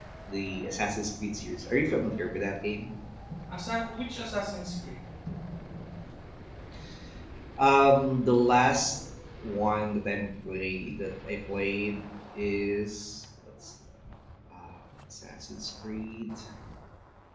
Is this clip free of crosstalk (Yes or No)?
Yes